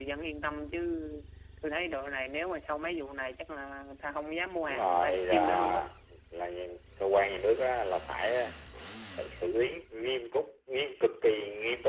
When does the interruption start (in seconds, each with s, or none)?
4.6 s